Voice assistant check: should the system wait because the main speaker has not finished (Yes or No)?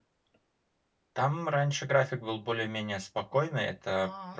Yes